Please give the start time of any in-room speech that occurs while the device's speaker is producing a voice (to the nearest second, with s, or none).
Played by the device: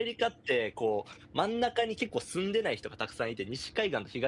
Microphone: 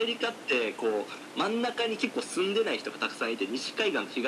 none